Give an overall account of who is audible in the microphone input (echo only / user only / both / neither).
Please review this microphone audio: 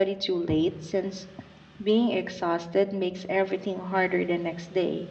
echo only